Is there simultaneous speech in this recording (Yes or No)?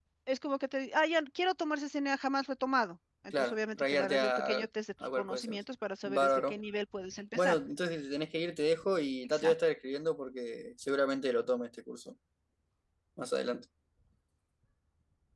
Yes